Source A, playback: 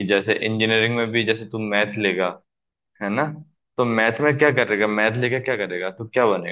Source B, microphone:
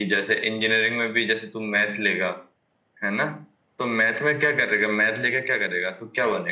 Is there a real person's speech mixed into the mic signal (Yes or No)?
No